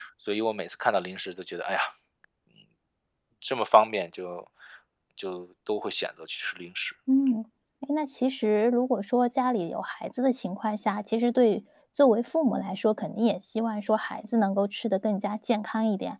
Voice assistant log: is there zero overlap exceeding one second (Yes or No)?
Yes